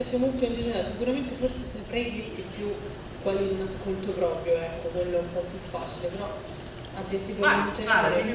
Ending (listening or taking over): taking over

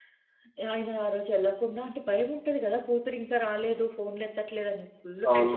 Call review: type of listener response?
taking over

